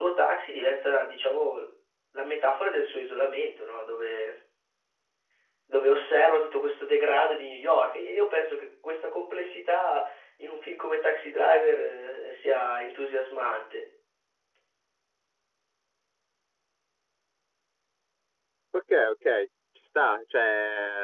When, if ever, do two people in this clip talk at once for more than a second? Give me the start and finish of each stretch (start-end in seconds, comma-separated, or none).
none